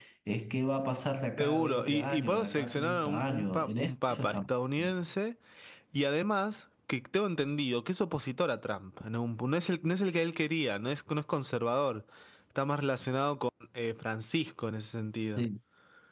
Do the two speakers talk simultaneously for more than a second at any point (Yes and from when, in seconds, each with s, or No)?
Yes, from 1.4 s